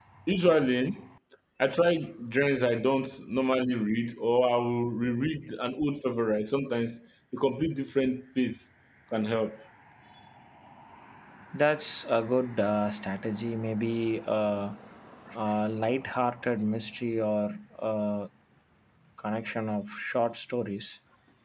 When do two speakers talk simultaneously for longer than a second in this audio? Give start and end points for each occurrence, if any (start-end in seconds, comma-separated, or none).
none